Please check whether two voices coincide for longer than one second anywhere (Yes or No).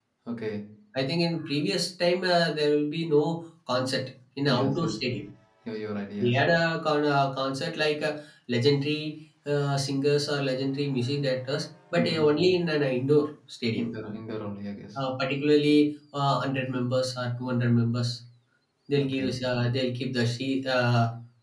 No